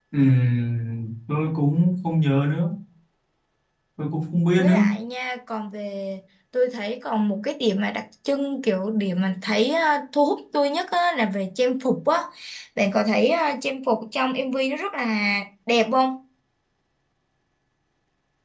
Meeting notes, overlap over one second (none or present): none